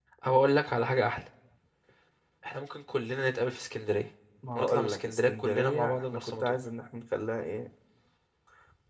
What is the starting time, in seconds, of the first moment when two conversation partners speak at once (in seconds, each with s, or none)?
4.5 s